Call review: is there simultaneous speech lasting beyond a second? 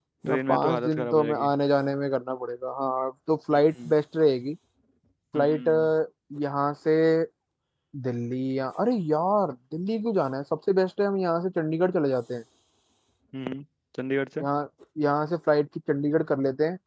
Yes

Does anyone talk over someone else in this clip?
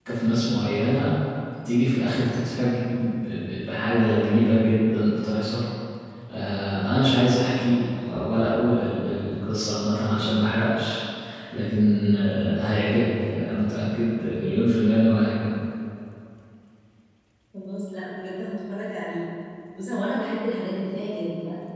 No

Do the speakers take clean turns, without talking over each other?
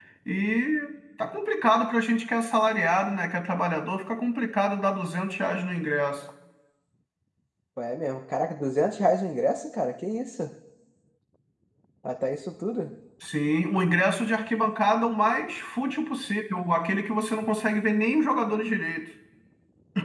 Yes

